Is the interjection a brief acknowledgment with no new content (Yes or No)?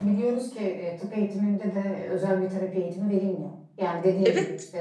Yes